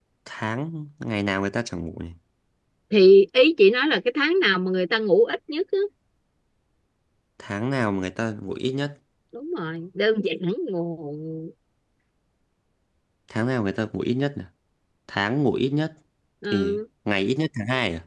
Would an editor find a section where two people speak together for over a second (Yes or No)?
No